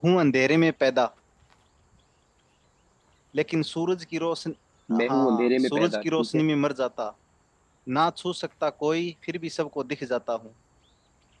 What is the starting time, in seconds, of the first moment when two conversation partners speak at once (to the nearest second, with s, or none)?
5 s